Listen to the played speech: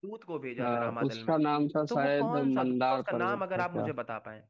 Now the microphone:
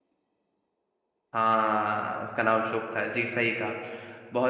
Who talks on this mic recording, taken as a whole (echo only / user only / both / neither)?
user only